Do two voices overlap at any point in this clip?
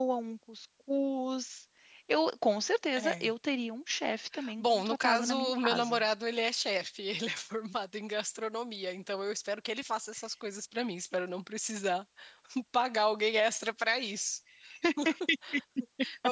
Yes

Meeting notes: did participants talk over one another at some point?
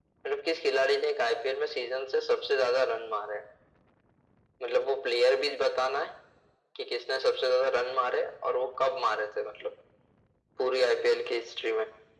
No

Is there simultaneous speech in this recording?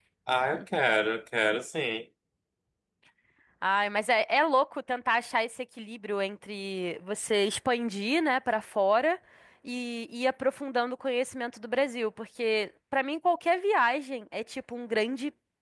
No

